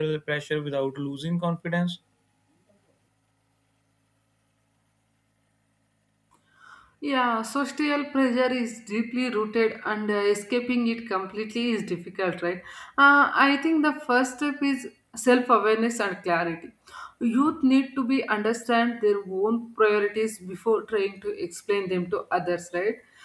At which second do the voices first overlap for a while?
none

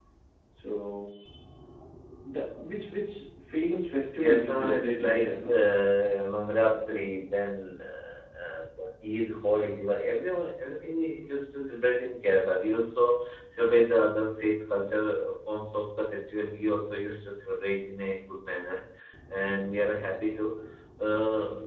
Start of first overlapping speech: 4 s

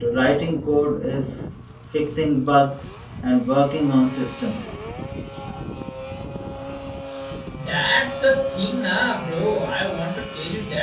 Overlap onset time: none

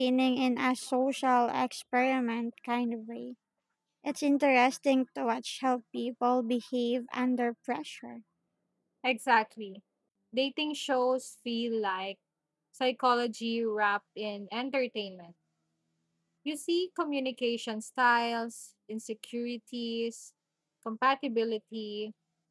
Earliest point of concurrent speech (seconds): none

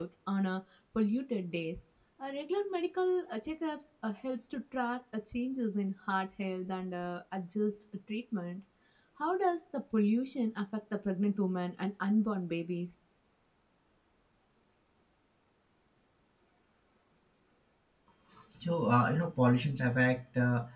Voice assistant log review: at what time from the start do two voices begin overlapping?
none

